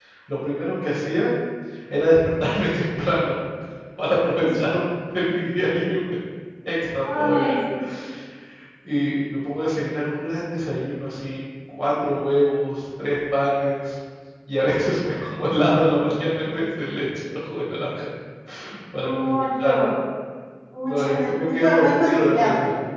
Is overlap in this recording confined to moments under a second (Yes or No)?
No